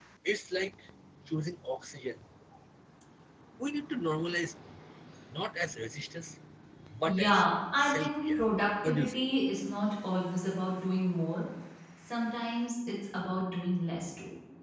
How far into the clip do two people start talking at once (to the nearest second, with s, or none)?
7 s